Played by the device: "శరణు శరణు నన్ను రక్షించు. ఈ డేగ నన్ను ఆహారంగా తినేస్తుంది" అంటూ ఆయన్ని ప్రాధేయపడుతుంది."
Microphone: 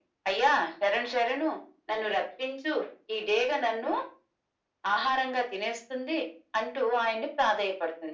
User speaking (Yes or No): No